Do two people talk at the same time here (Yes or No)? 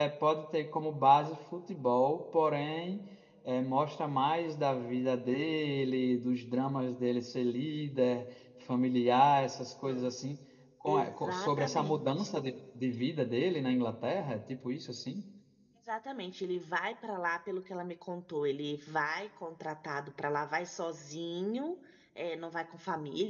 Yes